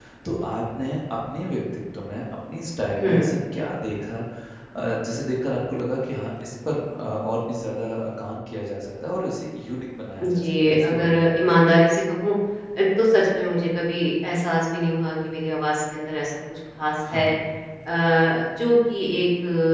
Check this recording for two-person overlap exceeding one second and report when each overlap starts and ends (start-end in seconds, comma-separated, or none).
10.2-11.5